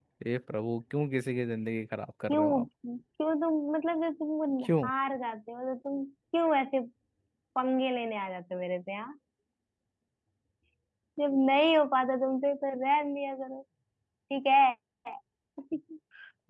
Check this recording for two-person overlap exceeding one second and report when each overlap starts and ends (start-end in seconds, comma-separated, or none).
none